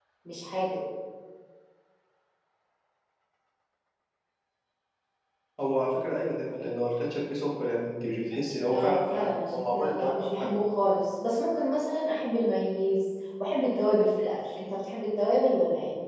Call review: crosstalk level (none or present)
present